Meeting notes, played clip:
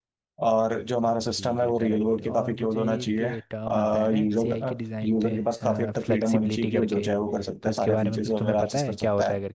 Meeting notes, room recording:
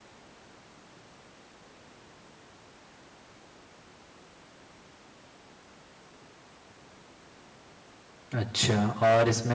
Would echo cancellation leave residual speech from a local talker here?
Yes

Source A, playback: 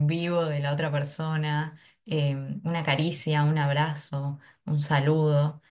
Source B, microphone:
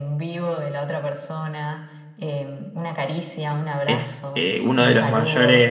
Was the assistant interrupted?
Yes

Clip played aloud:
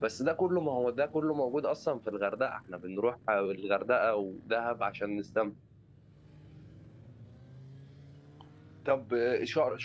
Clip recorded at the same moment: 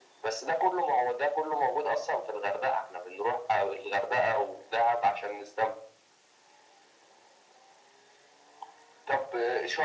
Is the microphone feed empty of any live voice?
Yes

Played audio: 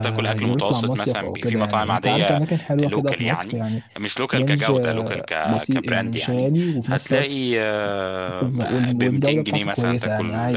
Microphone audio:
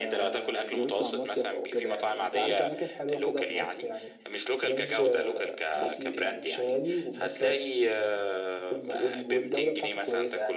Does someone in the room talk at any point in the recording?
No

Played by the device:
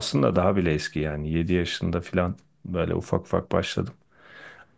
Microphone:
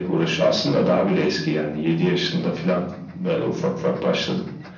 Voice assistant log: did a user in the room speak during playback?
No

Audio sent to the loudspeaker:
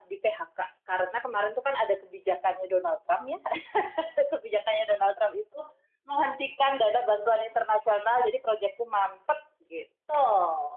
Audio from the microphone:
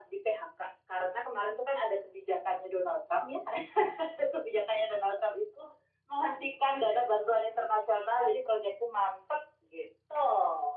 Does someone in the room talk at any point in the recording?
No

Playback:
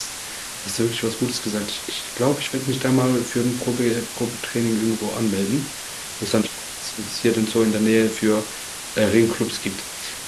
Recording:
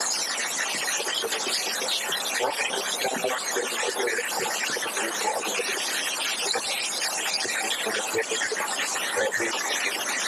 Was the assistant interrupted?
No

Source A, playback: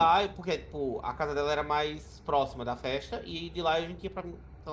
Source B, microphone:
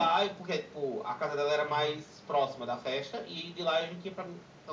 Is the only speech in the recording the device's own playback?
No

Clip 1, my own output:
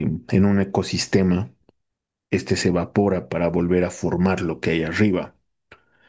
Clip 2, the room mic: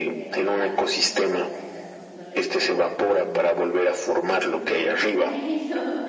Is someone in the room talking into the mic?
Yes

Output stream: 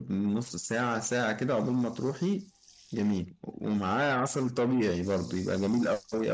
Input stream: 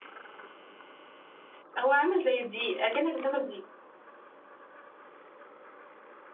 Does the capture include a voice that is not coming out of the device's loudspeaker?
Yes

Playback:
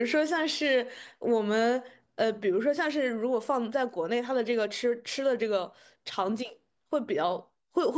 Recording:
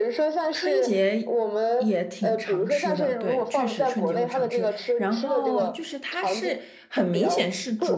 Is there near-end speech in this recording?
Yes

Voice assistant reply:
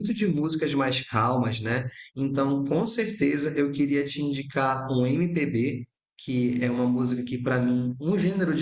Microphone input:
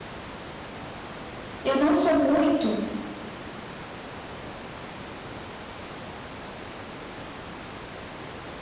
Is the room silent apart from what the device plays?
No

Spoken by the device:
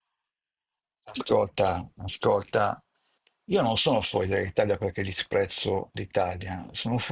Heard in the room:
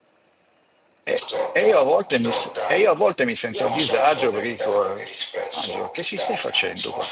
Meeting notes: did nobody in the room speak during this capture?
No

